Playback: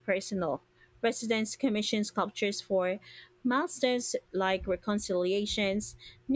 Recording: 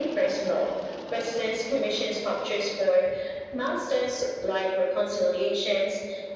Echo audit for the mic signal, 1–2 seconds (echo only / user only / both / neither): echo only